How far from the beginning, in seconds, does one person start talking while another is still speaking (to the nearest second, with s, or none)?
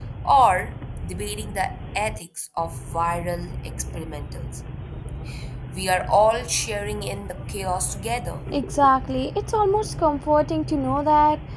none